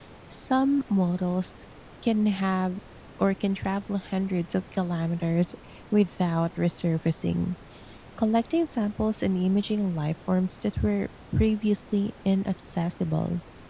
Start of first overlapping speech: none

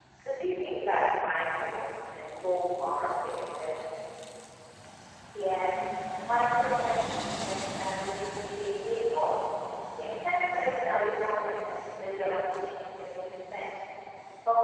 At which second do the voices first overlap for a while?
none

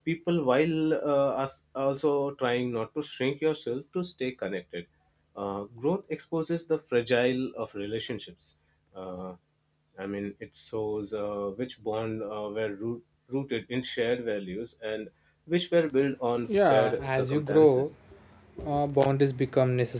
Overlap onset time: 16.5 s

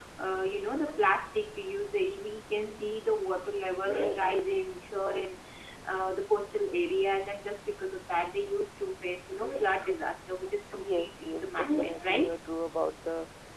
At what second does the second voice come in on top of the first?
10.8 s

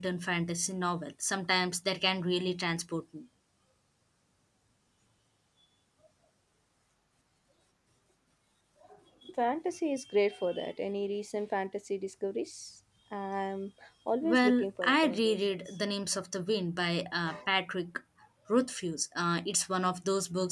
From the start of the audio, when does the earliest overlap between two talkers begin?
14.2 s

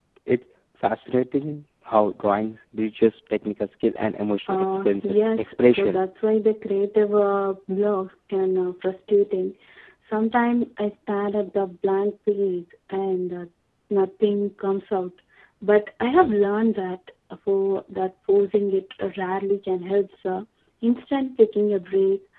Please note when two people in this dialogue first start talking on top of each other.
4.5 s

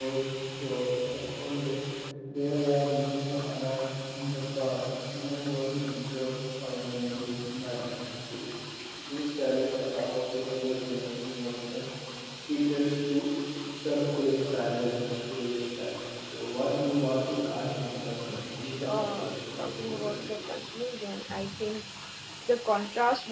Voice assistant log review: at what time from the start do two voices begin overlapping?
18.3 s

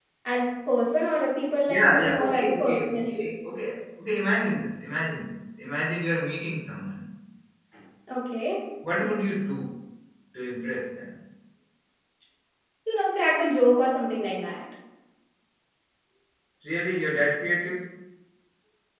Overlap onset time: 1.7 s

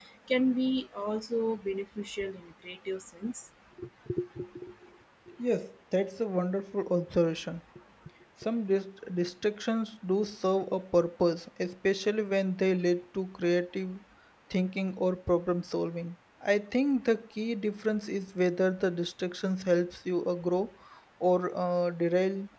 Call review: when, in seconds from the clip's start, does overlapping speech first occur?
none

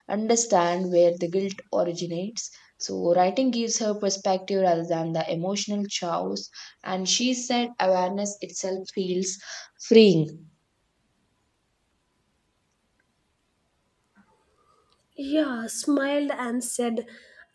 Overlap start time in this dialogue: none

